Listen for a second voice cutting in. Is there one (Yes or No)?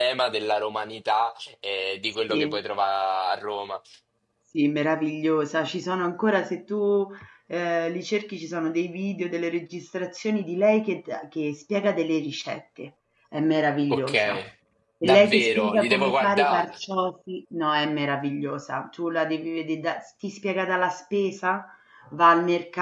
Yes